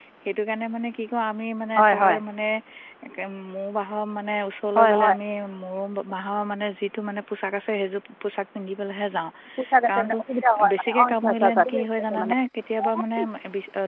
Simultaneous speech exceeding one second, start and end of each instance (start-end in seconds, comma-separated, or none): 10.7-12.3